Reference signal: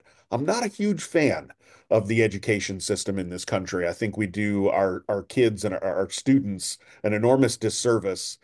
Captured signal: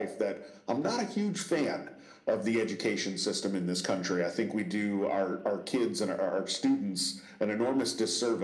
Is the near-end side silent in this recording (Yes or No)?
Yes